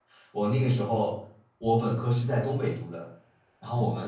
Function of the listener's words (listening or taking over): listening